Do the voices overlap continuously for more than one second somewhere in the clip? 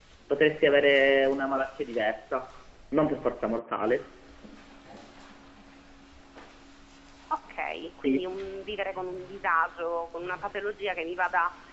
No

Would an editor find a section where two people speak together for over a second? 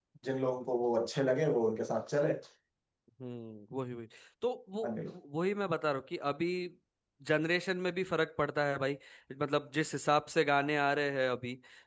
No

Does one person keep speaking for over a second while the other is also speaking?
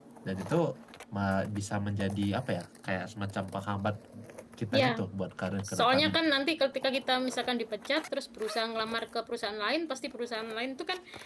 No

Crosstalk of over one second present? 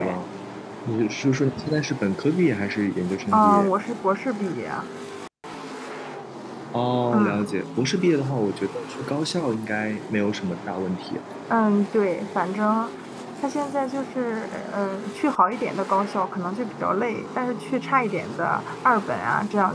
No

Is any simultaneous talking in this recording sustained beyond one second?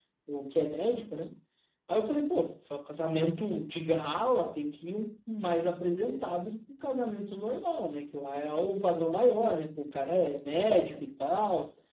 No

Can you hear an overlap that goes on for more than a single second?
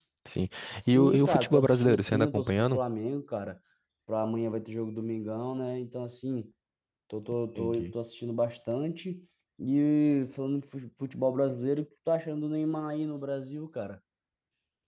Yes, from 0.9 s

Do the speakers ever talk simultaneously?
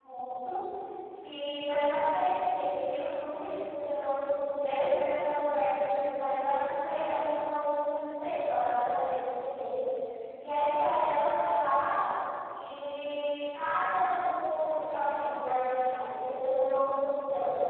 No

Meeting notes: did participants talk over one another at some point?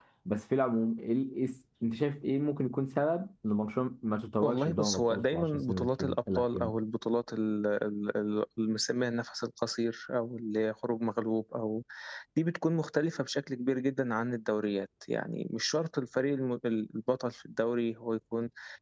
Yes, from 4.4 s

